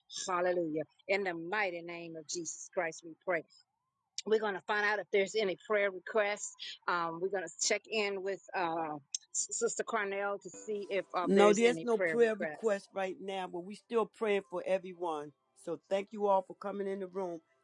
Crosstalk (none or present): present